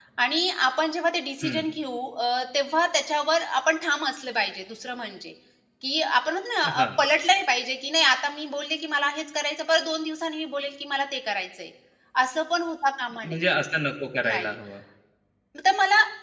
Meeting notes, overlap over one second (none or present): none